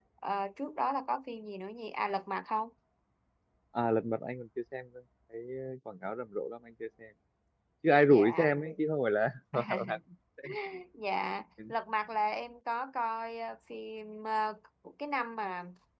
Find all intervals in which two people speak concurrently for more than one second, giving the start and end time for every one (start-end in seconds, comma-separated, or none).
none